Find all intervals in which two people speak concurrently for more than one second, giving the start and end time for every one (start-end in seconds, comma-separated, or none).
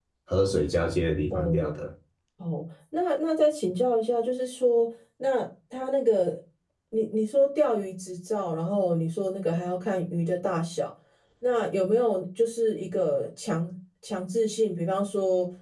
none